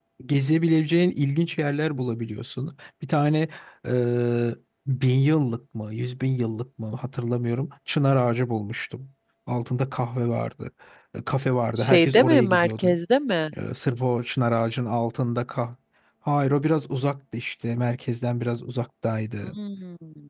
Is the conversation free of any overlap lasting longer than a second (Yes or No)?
No